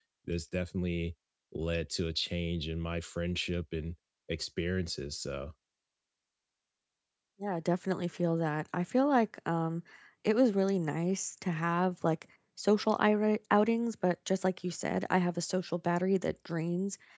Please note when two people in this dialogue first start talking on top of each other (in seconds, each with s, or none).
none